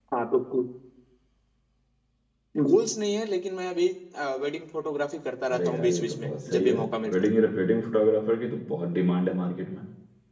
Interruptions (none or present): present